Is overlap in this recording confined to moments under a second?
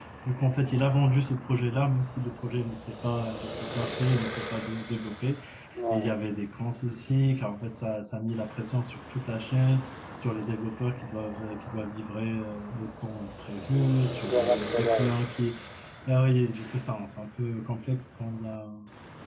No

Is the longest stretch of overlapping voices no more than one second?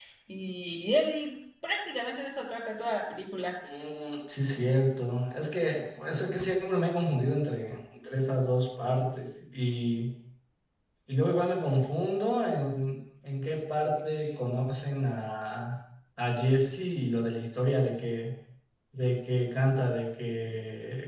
Yes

